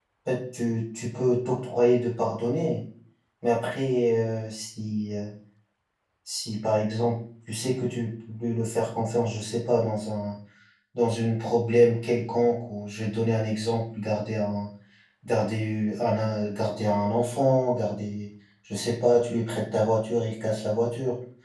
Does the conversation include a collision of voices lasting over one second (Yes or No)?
No